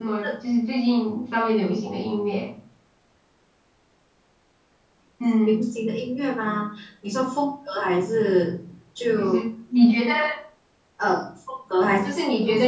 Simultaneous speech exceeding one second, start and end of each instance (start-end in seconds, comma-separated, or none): none